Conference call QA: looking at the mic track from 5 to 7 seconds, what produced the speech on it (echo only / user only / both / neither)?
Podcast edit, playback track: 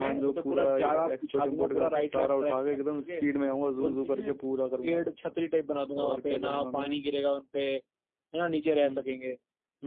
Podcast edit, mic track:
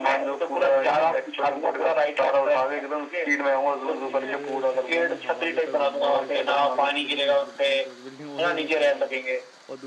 both